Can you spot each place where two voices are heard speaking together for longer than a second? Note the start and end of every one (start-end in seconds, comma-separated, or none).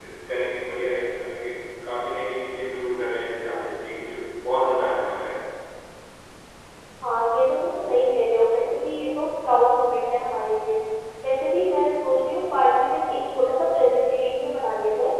none